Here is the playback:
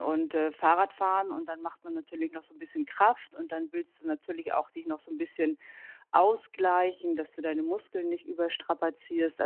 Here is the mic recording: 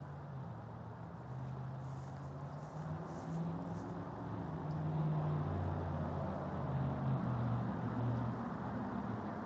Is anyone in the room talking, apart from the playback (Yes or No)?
No